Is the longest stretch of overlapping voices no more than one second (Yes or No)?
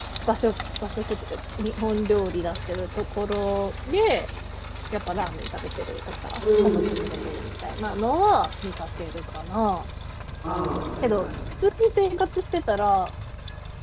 Yes